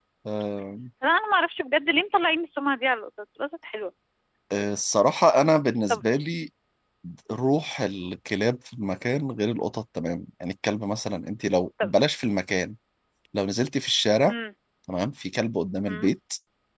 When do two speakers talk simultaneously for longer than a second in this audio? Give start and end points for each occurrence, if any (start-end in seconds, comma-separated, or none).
none